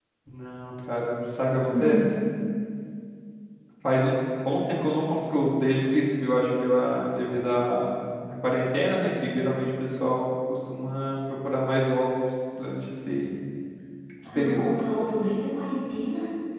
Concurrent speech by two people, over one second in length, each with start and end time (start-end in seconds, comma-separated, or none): none